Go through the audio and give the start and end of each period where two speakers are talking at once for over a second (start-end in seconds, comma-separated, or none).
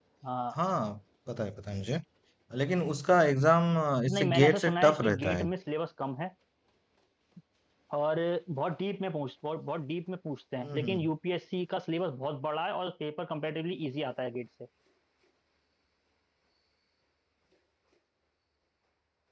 4.1-5.5